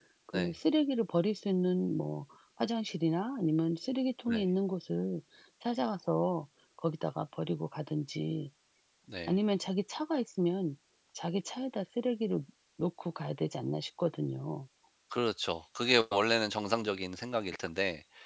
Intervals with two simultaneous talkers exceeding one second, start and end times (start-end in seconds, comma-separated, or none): none